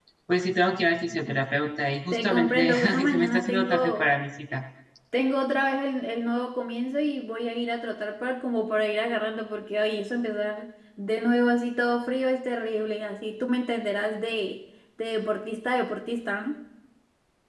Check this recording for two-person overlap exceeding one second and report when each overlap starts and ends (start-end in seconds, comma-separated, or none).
2.1-4.1